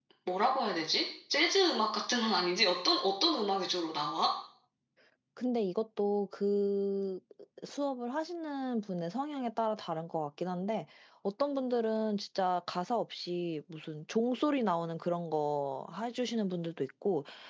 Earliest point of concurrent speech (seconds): none

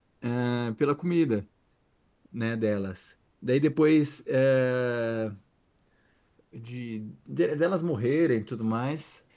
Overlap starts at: none

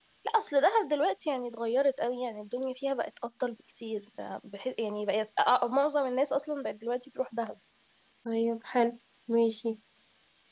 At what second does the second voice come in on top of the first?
none

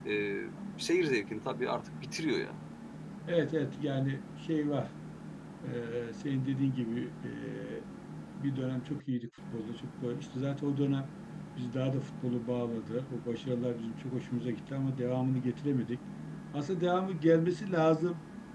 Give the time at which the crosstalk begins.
none

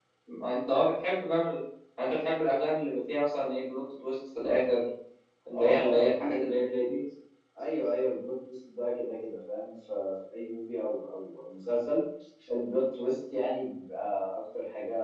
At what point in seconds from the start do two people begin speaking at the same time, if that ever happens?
6 s

